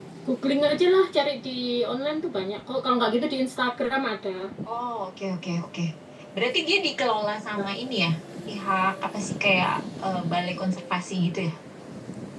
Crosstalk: none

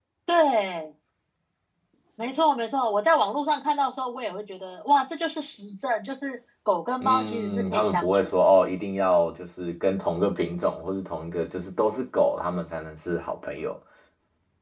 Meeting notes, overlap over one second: present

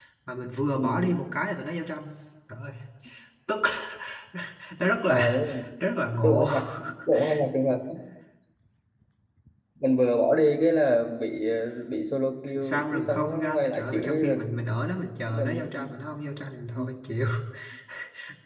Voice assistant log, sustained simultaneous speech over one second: present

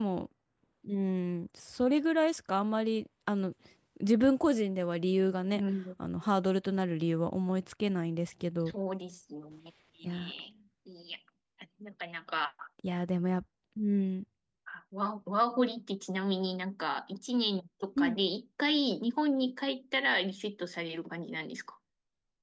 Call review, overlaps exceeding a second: none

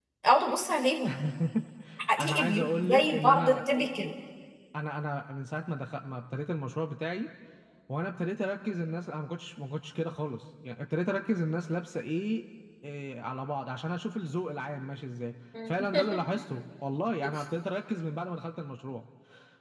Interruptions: present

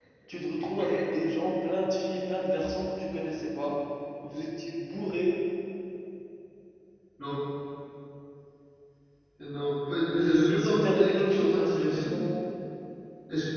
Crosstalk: present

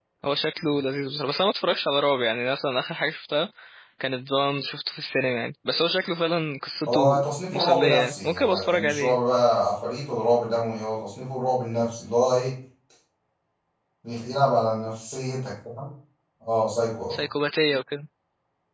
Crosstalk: present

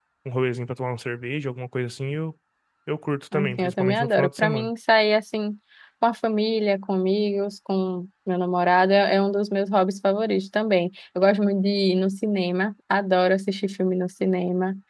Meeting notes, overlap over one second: present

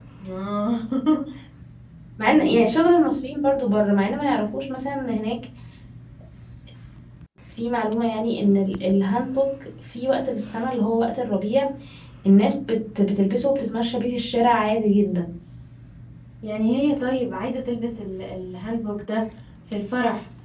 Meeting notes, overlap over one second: none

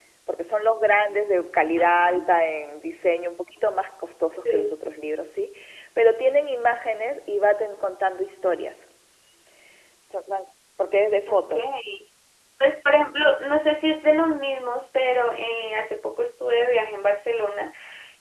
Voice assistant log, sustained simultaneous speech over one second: none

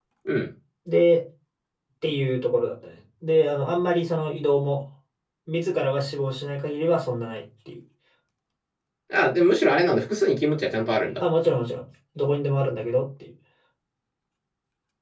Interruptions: none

